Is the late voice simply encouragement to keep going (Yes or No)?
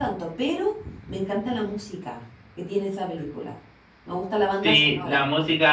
No